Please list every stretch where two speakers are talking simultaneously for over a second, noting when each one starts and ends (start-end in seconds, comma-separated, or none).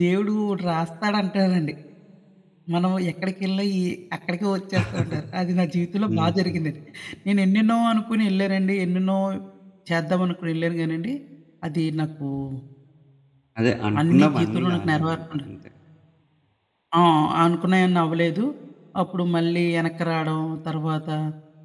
14.0-15.4